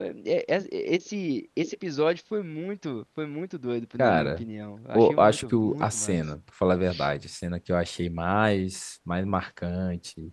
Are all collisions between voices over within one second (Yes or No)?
No